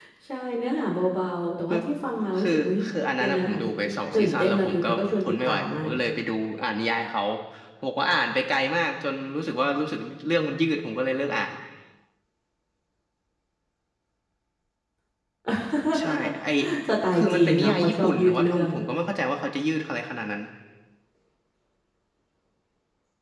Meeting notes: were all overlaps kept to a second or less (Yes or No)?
No